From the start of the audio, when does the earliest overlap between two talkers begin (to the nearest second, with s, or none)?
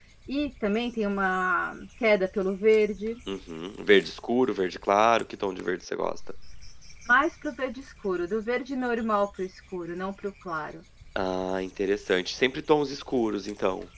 none